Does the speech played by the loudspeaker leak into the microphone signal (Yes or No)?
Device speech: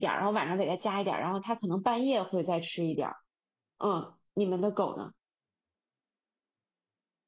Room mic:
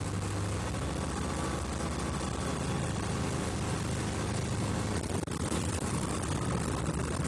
No